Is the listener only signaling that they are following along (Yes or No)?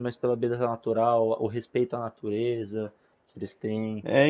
No